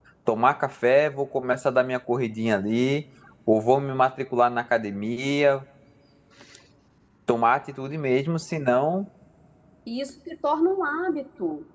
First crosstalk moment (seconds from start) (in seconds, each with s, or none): none